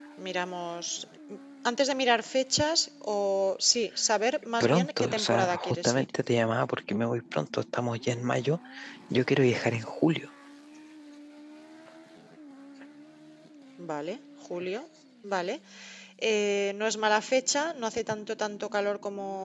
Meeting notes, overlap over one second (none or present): present